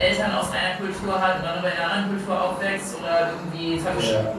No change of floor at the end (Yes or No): Yes